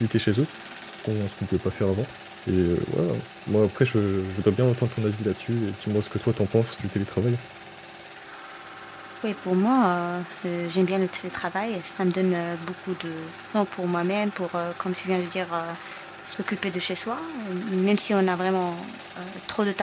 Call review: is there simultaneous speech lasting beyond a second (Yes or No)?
No